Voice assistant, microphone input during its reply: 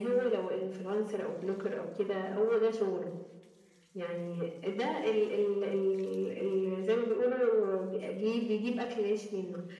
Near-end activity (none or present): none